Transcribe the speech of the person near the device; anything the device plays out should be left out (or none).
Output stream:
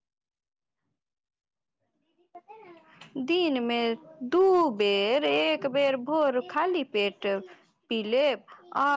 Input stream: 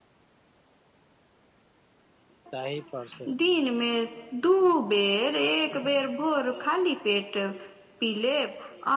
तहि पर से